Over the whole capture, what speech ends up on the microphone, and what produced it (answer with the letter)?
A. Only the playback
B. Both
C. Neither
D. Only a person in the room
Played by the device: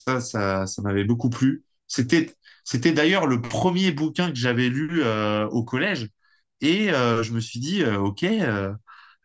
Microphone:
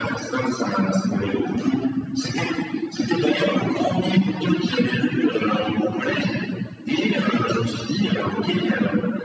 A